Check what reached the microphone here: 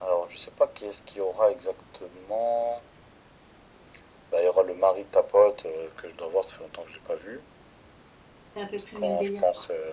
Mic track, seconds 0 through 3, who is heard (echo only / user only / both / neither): echo only